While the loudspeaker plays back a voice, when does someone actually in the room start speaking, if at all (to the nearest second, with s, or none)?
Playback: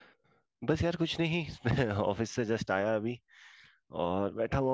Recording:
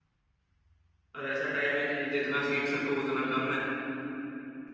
1 s